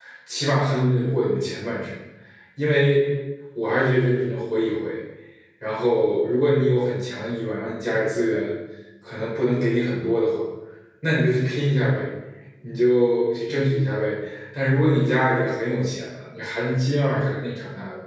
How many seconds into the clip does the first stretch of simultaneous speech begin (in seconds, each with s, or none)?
none